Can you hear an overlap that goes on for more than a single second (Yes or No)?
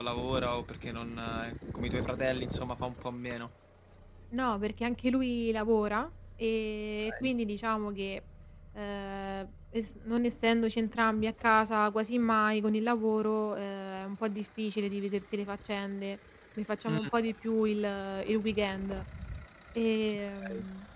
No